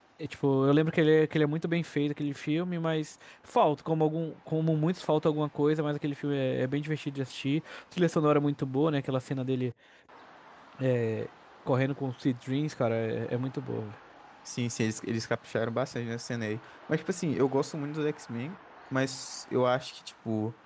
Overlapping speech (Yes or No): No